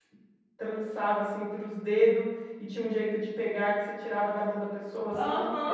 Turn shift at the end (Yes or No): Yes